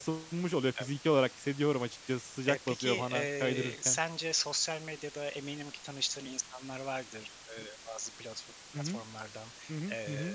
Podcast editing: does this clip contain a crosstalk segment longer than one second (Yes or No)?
Yes